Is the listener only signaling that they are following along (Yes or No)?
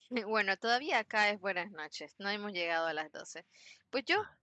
Yes